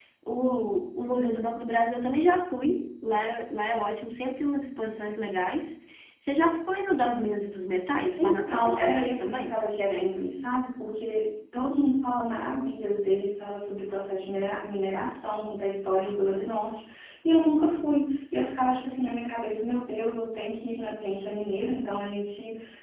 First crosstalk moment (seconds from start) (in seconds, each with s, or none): 8.2 s